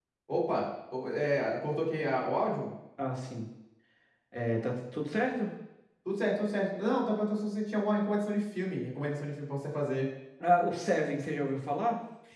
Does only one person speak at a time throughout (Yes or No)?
Yes